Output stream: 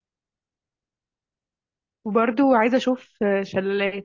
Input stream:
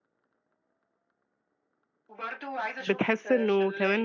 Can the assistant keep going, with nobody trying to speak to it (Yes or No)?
No